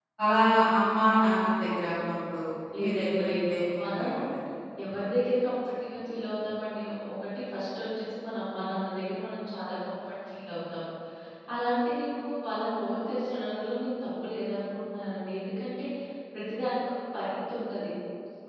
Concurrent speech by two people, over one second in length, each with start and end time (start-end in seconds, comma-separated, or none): 2.8-4.1